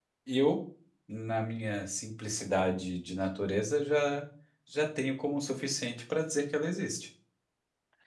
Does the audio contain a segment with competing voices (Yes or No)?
No